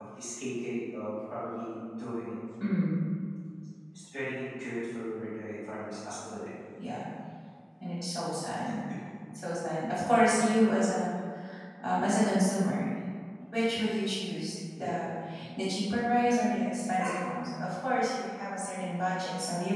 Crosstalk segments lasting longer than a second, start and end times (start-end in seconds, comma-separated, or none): none